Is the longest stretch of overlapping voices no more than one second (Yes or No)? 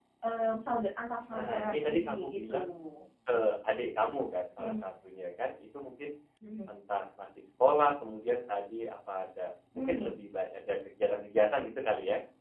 No